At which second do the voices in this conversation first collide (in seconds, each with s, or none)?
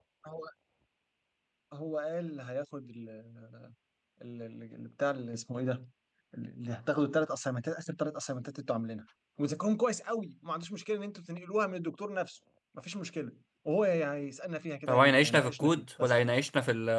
14.9 s